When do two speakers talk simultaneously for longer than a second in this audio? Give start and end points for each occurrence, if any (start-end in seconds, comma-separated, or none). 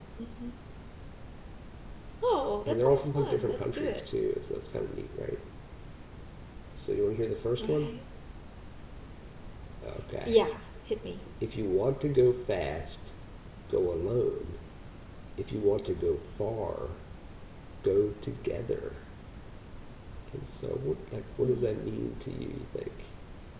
2.7-4.0